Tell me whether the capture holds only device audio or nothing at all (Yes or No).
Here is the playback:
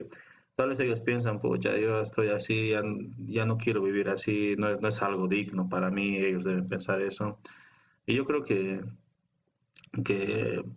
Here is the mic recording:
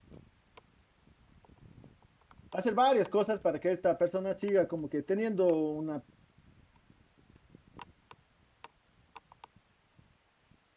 No